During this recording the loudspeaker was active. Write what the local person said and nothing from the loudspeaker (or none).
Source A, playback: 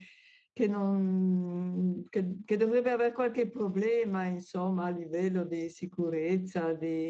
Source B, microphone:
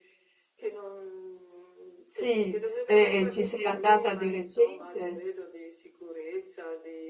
sì, e, e ci sei andata di recente?